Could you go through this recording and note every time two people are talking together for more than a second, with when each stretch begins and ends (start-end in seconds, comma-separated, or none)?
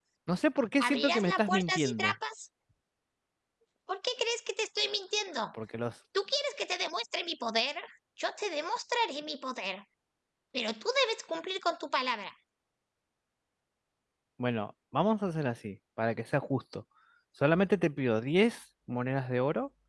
0.8-2.1